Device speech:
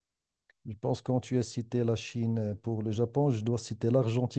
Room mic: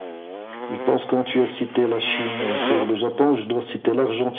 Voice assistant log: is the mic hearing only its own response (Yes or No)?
Yes